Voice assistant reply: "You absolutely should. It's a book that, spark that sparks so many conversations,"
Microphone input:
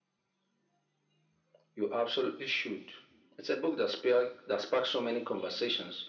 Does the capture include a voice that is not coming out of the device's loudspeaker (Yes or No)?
No